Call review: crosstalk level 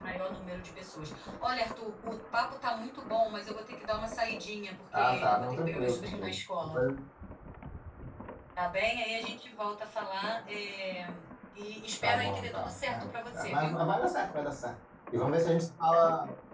present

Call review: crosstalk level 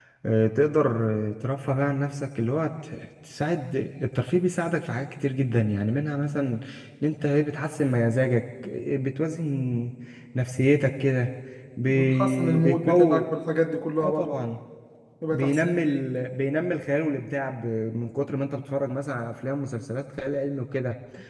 present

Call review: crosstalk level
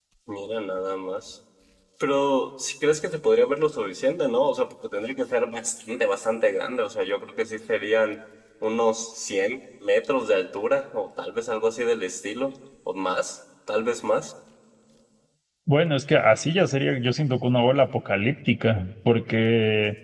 none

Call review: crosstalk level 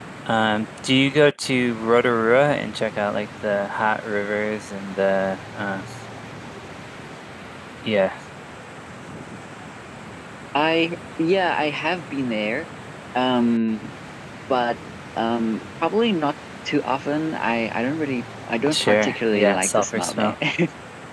present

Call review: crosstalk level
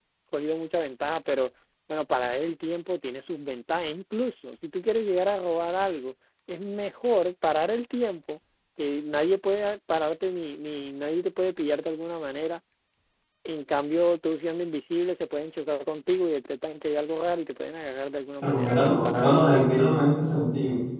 present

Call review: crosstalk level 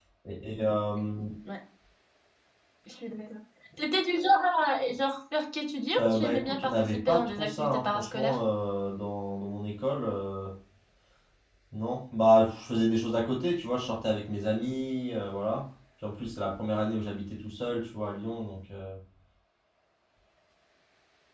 present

